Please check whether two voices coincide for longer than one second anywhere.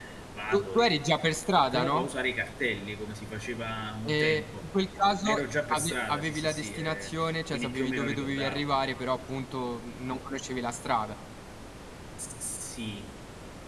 Yes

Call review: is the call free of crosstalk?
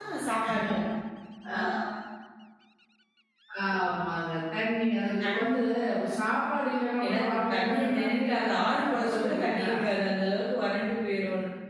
No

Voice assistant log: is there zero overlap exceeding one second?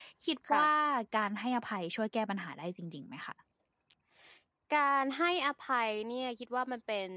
Yes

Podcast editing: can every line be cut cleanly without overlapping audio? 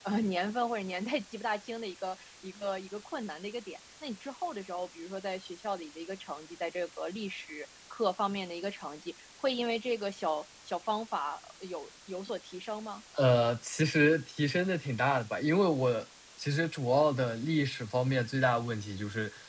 Yes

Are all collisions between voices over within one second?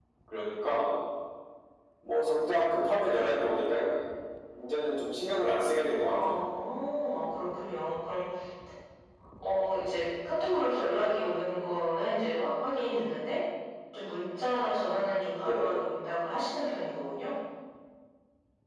Yes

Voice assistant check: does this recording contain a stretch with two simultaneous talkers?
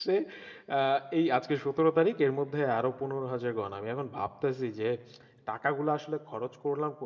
No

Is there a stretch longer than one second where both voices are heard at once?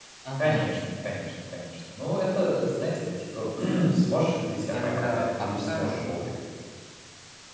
Yes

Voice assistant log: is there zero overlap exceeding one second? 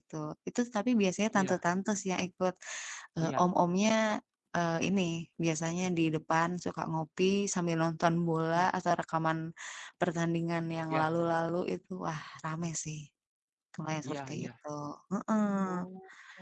Yes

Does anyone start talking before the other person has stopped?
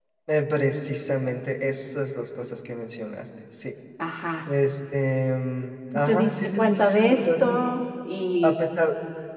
Yes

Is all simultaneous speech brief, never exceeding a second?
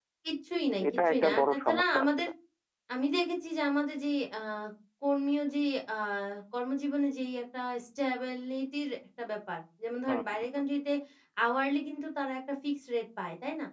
No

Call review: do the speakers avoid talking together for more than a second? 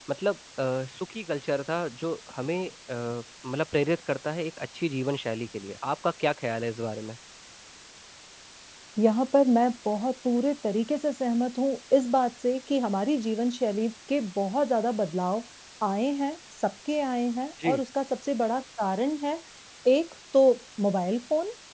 Yes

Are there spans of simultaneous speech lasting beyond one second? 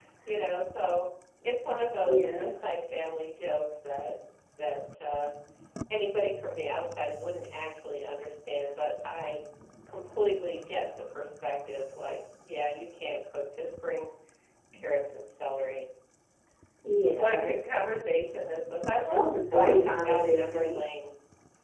Yes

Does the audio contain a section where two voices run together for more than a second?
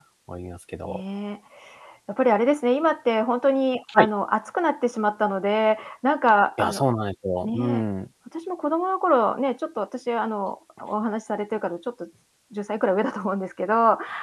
No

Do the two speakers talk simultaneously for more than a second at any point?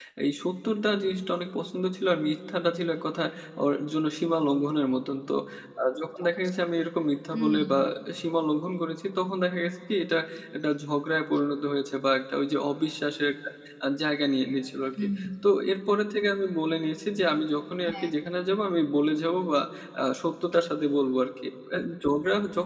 No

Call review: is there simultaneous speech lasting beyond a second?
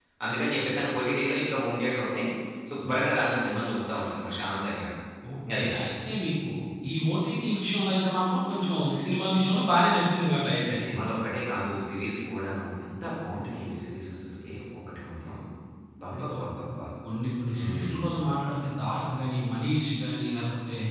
No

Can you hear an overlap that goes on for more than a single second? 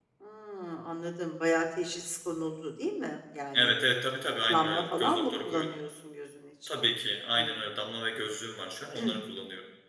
Yes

